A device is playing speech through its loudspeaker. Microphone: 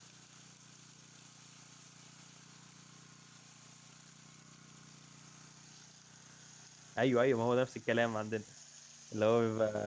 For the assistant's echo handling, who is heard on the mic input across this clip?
user only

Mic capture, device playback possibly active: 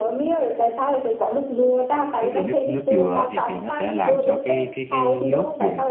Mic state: both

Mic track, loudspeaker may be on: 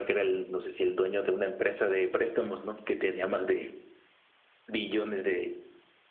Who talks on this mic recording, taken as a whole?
echo only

